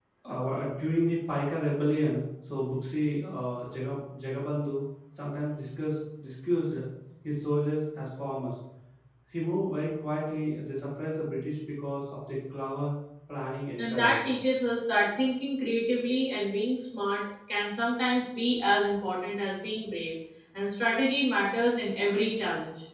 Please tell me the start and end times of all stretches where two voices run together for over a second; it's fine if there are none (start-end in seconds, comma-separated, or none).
none